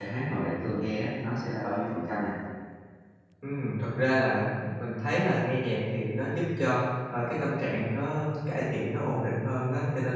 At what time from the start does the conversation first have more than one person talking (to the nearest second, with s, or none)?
none